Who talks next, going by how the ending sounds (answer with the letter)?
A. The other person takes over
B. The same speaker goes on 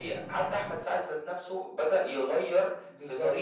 A